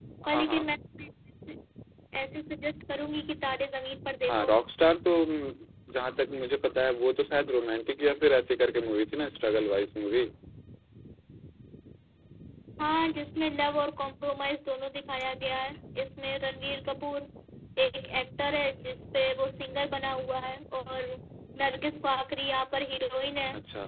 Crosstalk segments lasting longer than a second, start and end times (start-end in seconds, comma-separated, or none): none